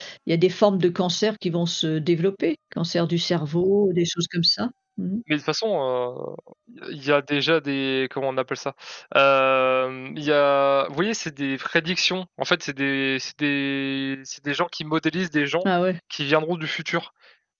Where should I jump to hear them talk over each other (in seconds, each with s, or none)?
none